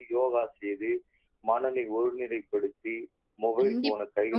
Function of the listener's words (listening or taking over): taking over